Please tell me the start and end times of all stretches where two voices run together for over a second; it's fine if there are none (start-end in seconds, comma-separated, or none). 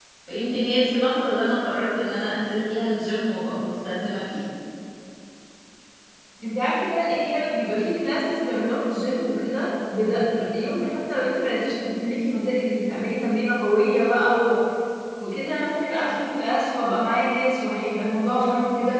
none